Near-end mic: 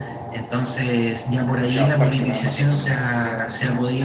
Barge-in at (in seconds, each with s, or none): 1.6 s